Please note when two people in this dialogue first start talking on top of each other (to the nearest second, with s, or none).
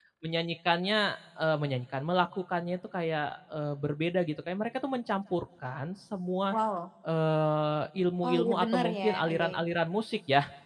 8 s